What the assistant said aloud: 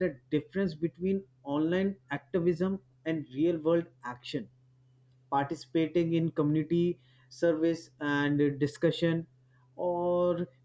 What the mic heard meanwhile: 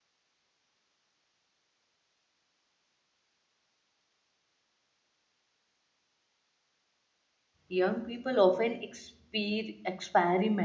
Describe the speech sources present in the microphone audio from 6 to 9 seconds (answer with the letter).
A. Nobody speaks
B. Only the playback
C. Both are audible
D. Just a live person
D